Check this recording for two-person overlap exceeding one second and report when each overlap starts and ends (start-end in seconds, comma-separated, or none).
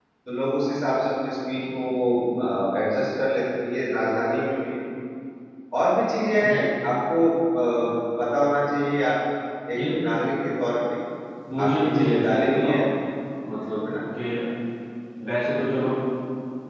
11.6-12.8